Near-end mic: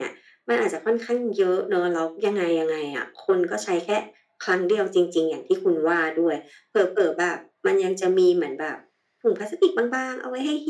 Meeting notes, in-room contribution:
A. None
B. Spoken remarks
A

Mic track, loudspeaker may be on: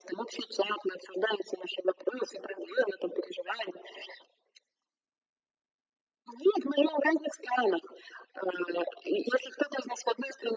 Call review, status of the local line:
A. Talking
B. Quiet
B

